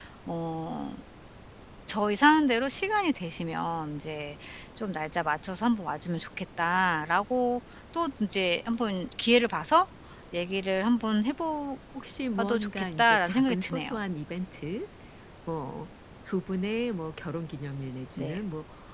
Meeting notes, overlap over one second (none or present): present